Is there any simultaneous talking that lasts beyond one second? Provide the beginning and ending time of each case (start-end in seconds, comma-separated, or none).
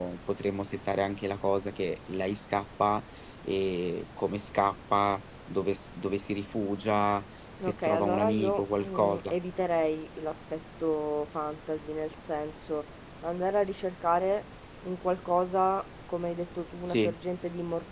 7.6-9.3